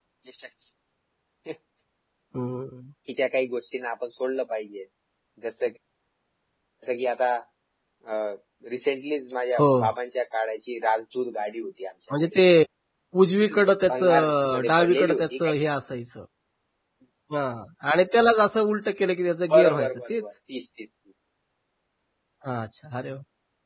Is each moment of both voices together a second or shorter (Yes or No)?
No